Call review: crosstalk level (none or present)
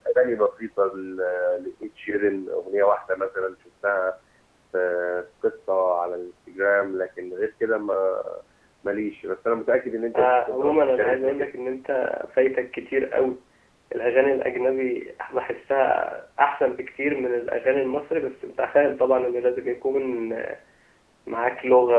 present